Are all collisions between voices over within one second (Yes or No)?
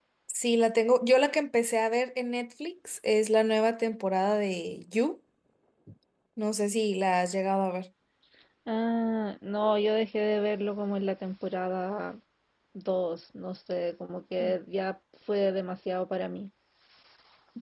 Yes